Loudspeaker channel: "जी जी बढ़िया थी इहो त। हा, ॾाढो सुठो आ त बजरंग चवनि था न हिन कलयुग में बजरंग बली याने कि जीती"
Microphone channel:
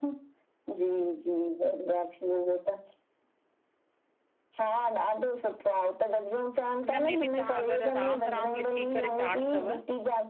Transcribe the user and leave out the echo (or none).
उन में बि तव्हां अगरि राम-राम लिखी करे चाढ़ंदव